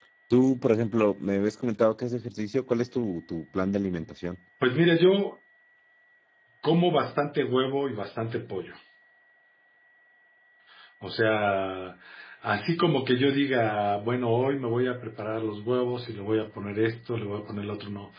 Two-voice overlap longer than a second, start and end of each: none

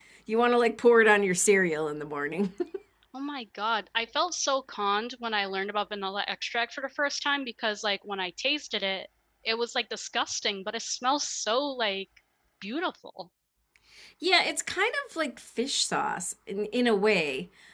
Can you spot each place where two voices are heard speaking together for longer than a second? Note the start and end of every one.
none

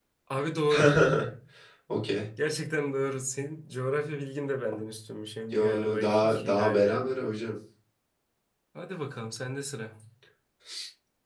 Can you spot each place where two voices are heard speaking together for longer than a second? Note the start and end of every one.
5.5-7.0

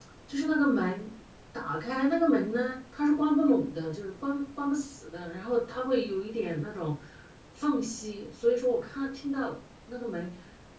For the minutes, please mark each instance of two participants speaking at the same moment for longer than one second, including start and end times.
none

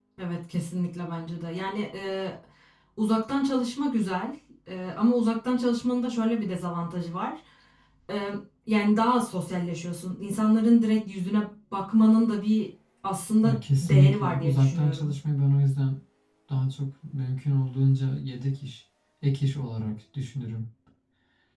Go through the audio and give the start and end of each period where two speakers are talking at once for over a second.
13.4-15.1

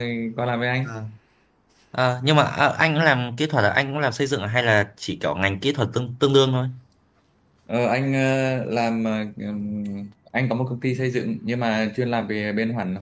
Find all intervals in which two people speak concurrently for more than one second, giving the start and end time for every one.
none

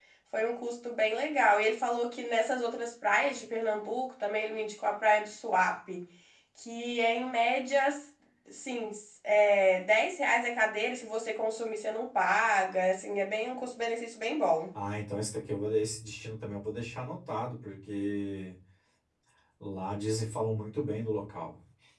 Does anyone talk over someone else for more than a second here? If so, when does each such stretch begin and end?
none

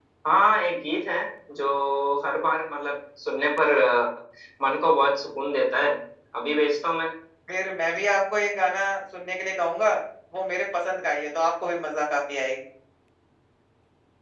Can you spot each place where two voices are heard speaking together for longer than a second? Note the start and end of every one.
none

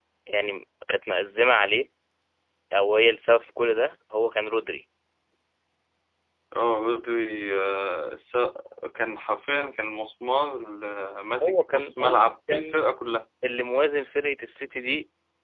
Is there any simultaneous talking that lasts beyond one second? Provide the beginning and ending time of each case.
11.4-12.9

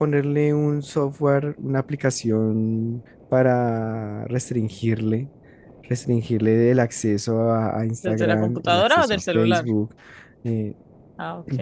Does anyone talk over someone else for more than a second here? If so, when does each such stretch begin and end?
8.0-9.7

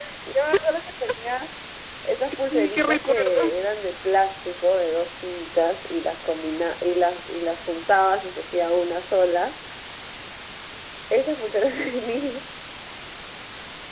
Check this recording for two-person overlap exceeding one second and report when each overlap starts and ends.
2.2-3.7

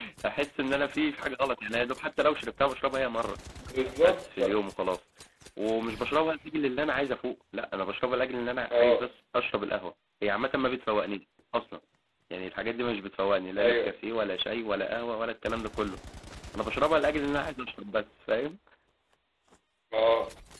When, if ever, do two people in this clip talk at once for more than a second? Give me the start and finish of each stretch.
none

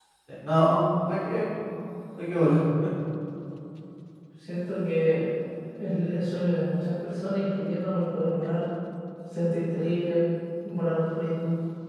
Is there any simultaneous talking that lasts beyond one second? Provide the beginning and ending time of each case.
none

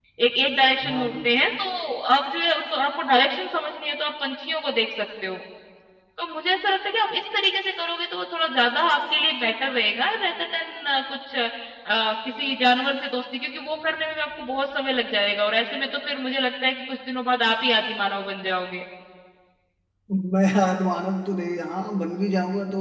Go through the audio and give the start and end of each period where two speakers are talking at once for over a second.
none

